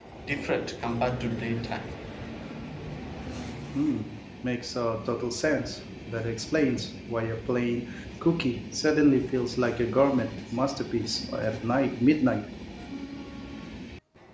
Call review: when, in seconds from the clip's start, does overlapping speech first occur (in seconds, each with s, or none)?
none